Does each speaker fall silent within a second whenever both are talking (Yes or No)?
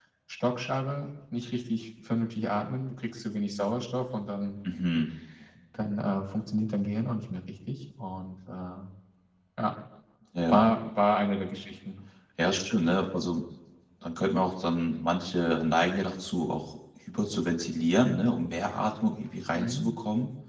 Yes